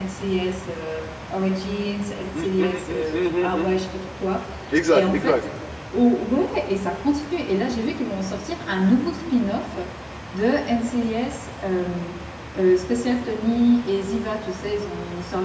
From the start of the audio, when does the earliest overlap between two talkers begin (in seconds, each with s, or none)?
2.3 s